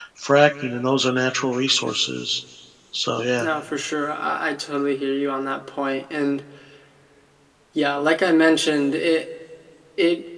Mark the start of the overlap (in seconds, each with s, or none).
none